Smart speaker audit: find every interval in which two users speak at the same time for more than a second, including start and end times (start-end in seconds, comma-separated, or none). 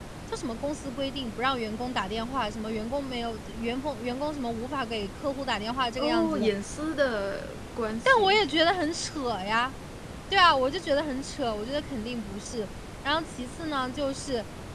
none